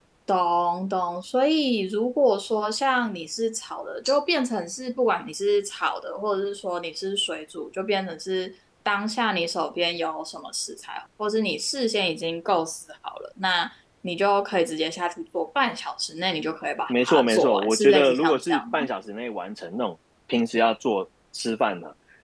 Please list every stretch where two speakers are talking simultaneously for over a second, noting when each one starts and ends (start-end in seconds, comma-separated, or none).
16.9-18.8